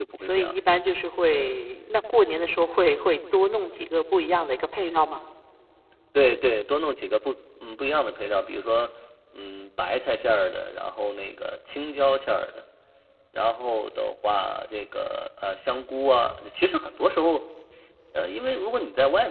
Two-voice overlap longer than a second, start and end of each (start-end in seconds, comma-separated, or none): none